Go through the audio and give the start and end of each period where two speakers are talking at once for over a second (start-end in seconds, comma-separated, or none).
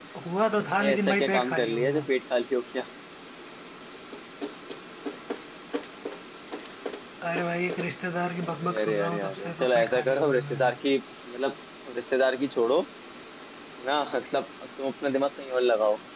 0.8-2.1, 8.6-10.7